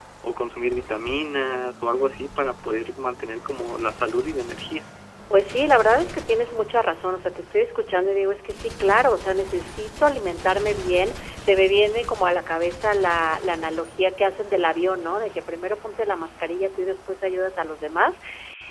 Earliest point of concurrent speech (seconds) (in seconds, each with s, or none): none